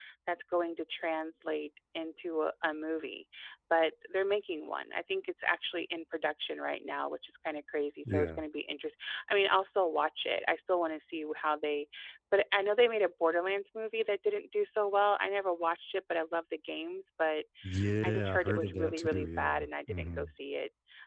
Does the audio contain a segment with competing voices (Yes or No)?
Yes